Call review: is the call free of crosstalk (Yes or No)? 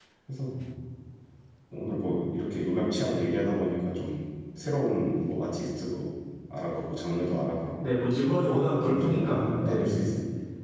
No